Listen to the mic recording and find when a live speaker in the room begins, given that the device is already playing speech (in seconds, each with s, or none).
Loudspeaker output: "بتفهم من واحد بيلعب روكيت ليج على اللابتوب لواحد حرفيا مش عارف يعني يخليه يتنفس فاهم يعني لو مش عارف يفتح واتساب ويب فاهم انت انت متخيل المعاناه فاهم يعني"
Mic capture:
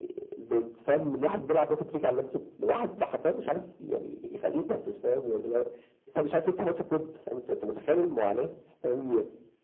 none